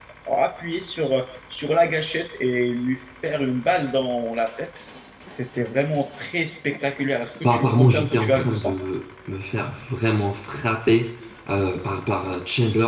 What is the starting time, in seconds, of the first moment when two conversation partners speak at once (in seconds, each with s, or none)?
7.4 s